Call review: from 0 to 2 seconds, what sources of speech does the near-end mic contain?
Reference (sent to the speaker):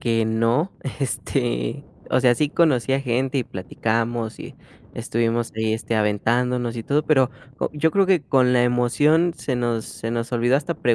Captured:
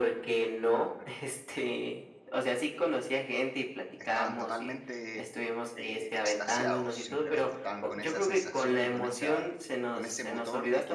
echo only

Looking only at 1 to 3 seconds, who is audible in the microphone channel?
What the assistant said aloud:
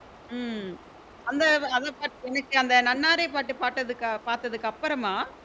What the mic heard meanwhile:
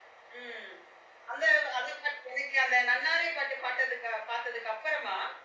echo only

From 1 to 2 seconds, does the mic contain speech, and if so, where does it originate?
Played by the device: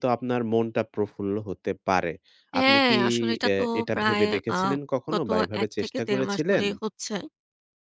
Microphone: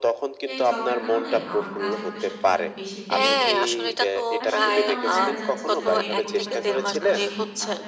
both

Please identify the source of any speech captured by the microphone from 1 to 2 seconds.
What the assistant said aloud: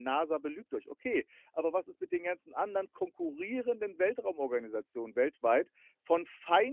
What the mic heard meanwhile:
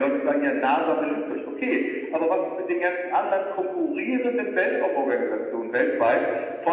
echo only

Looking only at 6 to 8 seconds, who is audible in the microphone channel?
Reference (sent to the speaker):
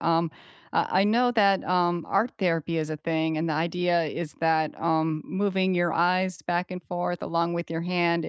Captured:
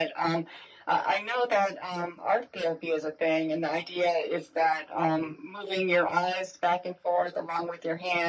echo only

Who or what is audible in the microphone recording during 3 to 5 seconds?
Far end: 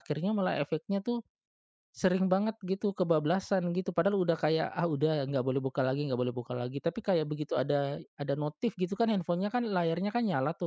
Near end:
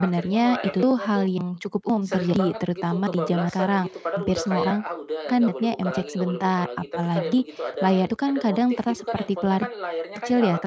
both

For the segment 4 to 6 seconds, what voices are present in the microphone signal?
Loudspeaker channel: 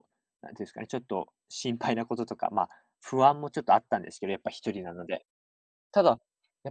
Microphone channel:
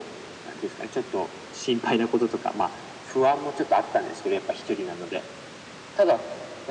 echo only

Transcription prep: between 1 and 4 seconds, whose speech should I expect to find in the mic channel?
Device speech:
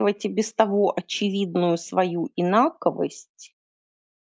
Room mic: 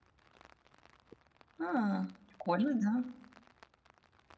user only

